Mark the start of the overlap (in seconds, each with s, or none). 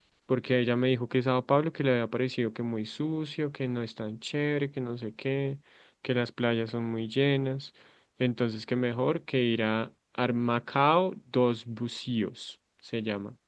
none